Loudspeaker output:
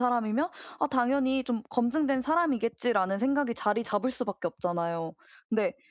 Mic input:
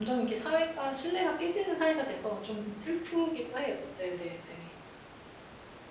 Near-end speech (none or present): present